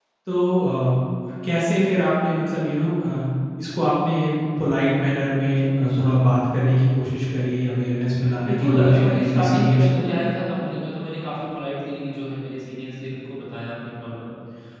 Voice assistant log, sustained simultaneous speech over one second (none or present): present